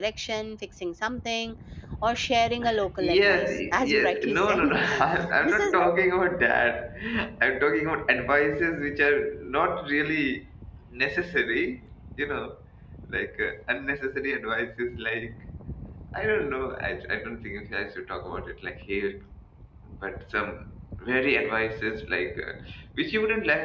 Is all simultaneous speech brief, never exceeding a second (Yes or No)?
No